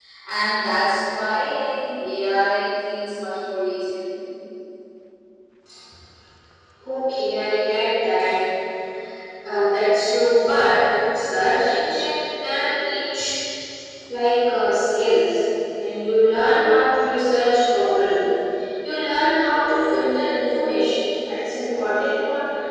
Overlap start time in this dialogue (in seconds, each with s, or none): none